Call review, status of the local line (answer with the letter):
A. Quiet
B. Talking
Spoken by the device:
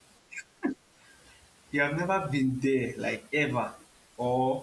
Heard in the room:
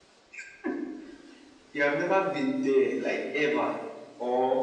A